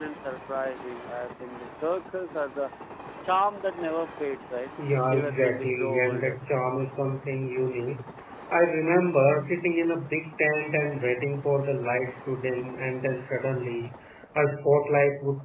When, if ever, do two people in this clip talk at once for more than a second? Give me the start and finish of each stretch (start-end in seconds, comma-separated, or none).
5.1-6.3